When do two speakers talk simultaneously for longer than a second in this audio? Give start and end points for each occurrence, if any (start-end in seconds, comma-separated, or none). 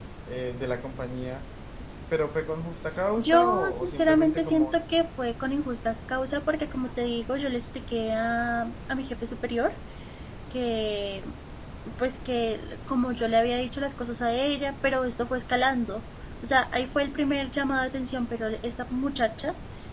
3.2-4.7